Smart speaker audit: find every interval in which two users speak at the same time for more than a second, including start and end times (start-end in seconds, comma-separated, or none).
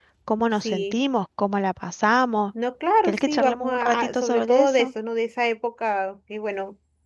3.0-4.9